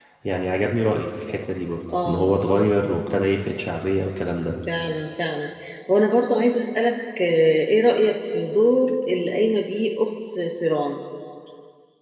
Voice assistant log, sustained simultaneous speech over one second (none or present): none